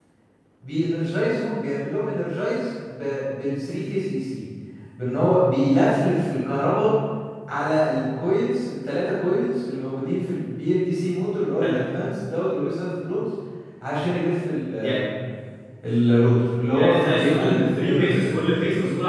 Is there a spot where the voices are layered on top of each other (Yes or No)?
Yes